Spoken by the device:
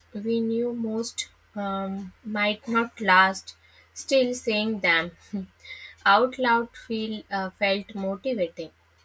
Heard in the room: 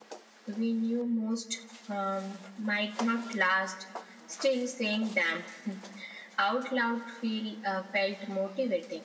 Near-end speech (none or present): none